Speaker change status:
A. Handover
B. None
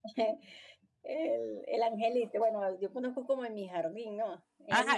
A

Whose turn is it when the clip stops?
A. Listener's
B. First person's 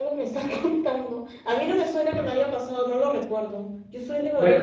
A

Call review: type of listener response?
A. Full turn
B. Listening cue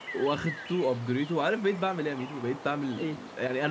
B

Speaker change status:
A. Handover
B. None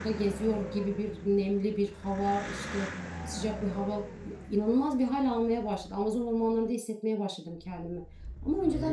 A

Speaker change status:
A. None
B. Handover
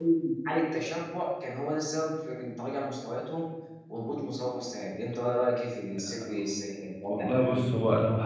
B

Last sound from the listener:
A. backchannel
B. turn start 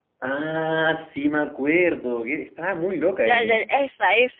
B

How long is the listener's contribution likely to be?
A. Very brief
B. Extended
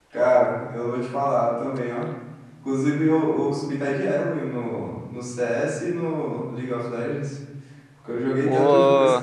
B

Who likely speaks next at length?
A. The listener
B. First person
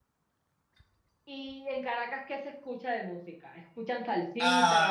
A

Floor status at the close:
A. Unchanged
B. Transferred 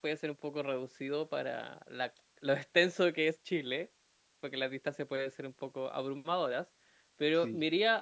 A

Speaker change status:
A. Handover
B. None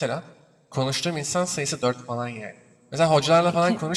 B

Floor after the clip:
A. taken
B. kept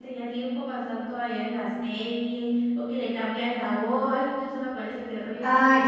A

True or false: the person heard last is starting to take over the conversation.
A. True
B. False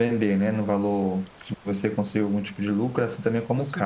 A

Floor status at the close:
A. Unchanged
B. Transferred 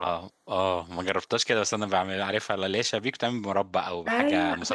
B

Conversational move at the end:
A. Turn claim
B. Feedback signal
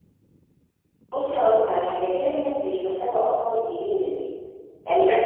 B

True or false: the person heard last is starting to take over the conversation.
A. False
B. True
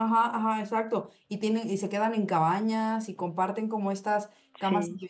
A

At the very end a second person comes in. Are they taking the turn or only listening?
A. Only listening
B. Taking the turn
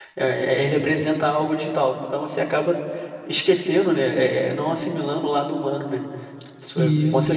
B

